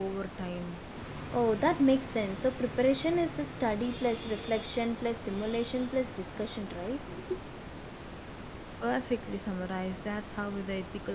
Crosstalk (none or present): none